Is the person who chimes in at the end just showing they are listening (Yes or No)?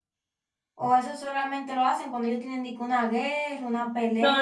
No